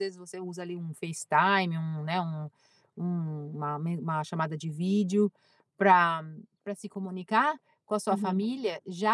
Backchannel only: Yes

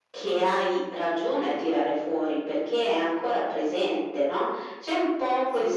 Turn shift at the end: No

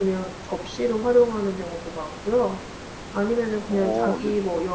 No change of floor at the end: Yes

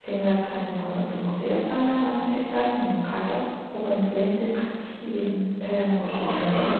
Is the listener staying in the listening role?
No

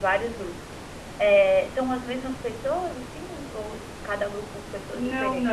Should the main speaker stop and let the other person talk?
Yes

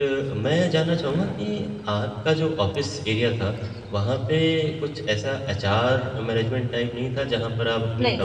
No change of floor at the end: Yes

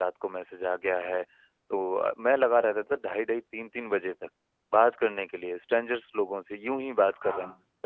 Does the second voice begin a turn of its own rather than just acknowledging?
No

